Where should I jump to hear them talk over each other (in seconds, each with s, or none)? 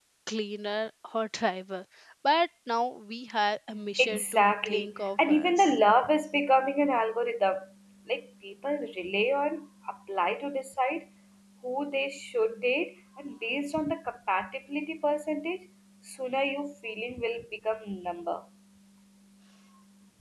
3.9 s